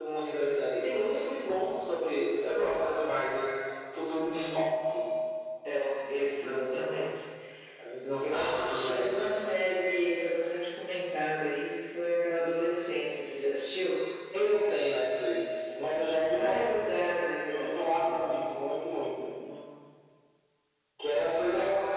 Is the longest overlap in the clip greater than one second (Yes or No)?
Yes